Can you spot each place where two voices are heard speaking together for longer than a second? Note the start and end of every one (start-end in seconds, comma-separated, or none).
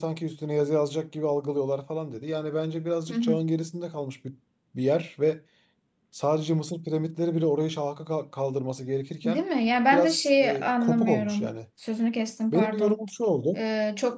9.9-11.5